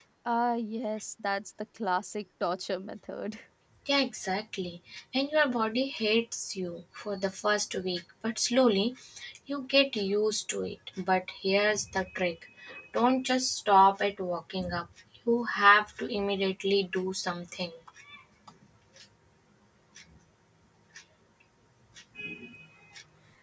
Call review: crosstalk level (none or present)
none